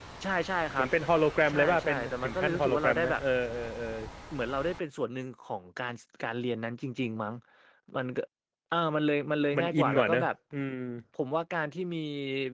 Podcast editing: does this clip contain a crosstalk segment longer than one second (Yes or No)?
Yes